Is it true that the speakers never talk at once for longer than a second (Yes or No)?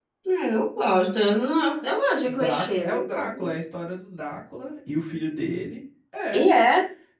No